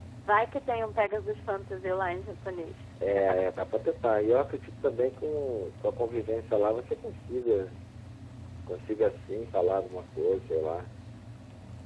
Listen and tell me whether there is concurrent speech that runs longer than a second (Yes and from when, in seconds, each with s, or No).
No